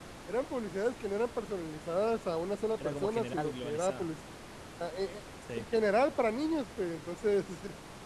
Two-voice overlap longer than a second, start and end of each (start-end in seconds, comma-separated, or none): 2.8-4.1